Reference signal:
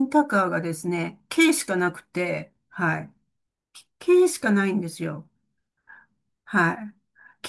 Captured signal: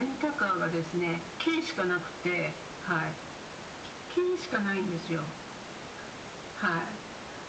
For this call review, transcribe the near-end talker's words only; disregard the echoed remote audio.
none

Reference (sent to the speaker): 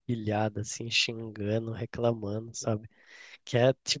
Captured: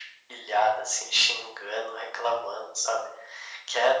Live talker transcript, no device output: none

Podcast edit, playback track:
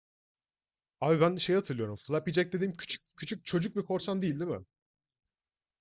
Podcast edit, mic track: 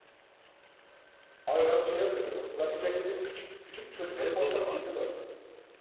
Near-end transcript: evet o da vardı.

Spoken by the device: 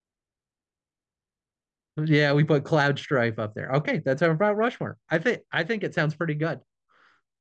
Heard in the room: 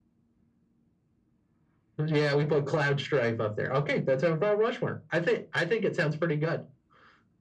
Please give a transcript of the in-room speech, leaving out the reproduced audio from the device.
none

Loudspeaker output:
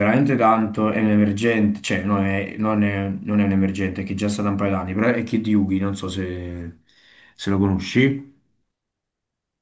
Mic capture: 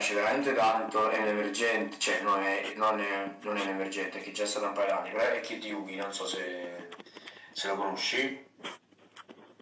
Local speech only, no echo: none

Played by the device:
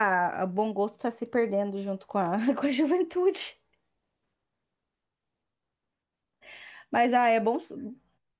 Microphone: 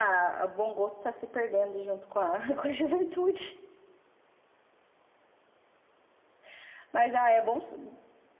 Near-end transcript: none

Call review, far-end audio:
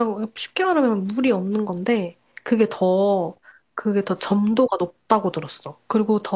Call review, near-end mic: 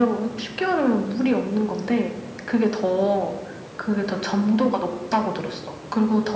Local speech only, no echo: none

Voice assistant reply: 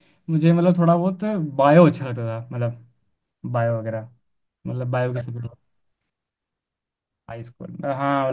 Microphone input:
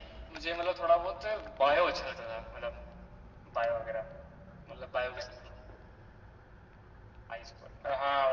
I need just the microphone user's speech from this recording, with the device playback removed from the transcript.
none

